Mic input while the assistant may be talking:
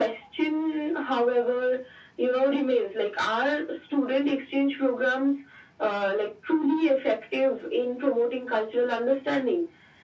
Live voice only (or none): none